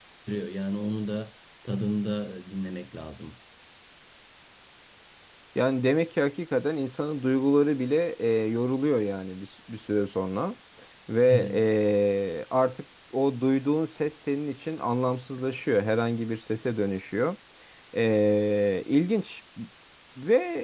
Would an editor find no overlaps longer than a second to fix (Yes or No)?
Yes